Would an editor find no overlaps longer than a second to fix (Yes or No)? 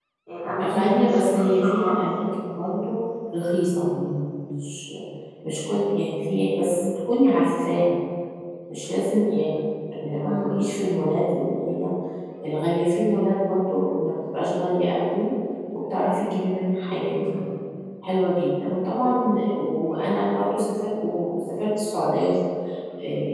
No